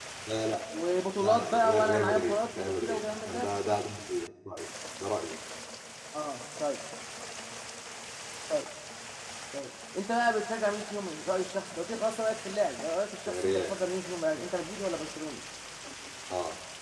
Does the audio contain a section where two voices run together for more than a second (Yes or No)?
Yes